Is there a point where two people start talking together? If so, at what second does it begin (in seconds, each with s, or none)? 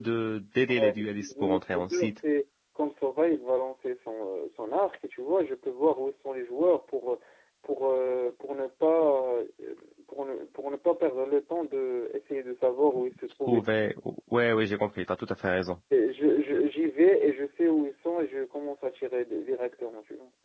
0.7 s